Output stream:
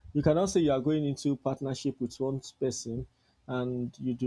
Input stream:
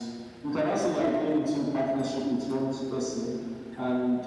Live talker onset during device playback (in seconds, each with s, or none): none